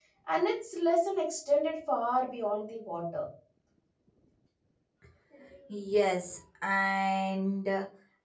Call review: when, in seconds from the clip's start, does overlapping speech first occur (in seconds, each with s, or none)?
none